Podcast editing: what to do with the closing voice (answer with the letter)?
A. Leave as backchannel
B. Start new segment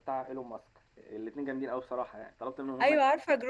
B